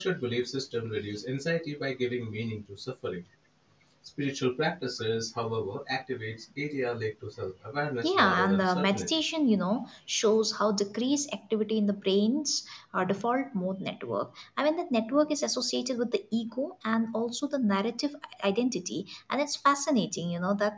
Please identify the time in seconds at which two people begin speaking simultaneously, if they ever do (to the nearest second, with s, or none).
8 s